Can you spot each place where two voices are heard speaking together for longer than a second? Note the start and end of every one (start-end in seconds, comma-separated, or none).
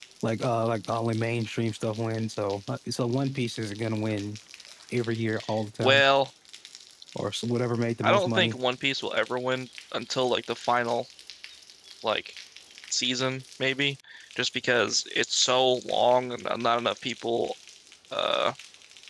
none